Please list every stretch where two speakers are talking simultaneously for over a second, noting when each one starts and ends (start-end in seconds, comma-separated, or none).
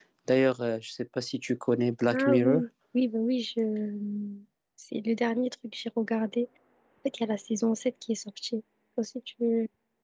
none